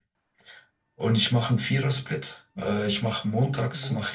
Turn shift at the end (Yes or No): No